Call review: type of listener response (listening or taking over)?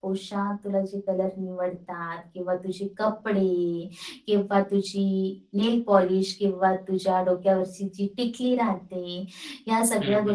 listening